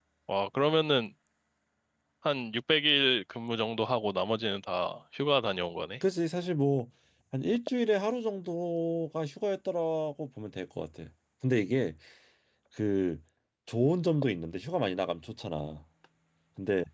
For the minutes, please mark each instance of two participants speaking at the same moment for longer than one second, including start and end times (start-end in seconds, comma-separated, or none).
none